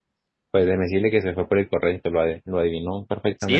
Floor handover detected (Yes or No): Yes